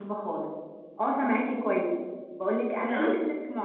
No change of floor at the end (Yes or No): Yes